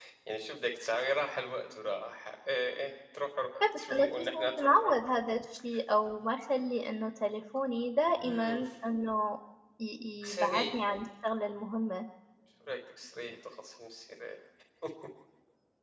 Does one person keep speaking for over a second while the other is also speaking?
Yes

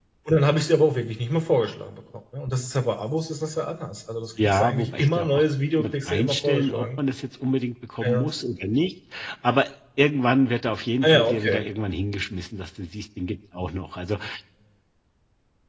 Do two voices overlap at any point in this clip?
Yes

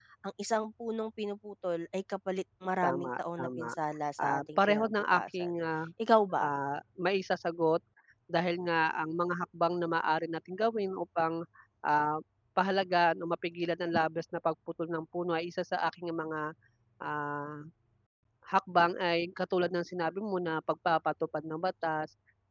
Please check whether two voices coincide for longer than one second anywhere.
Yes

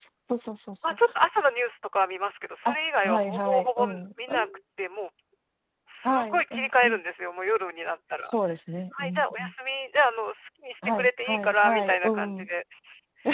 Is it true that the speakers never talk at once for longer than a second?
No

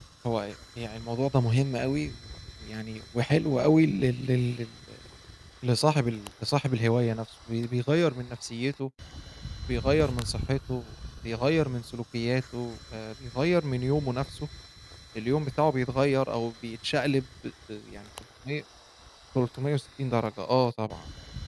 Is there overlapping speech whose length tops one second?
No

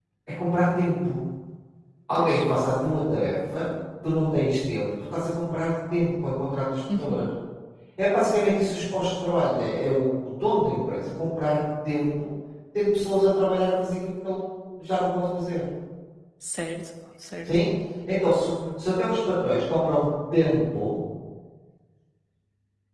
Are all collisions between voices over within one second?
Yes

